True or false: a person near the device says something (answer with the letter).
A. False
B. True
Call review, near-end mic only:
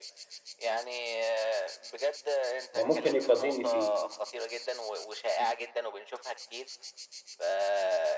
B